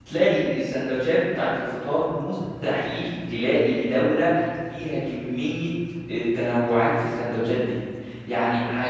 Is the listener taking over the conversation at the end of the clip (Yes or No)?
No